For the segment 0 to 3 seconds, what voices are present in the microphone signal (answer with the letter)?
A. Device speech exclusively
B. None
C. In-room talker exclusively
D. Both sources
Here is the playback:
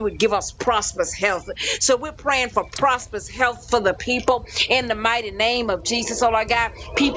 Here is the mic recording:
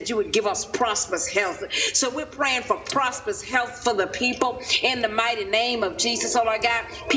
A